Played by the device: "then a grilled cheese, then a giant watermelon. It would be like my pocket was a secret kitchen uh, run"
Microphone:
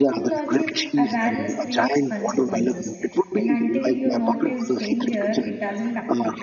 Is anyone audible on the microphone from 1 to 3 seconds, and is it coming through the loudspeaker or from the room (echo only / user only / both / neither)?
both